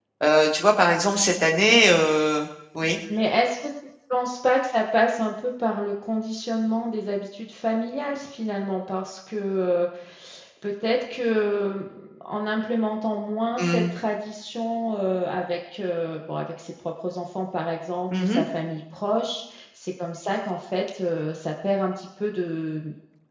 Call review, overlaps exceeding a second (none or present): none